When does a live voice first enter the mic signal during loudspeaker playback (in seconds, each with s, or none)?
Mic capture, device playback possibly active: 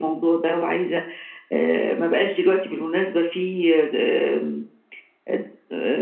none